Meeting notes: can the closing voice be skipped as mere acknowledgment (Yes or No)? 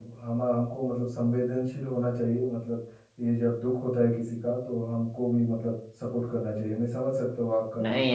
No